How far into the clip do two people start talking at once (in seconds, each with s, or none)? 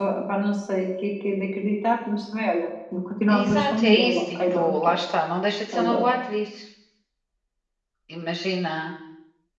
3.3 s